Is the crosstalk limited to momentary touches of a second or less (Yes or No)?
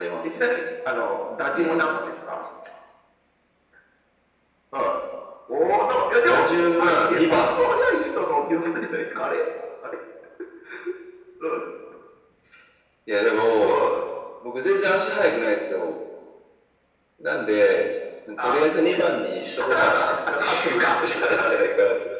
No